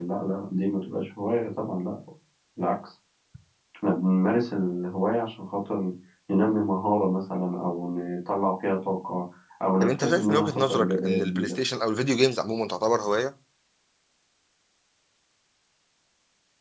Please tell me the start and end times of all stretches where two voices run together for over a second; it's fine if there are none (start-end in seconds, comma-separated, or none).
9.8-11.5